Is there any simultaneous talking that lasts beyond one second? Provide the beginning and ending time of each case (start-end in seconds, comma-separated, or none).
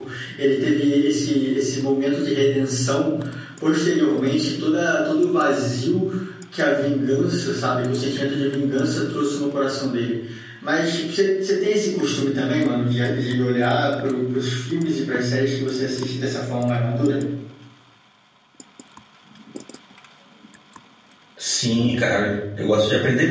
none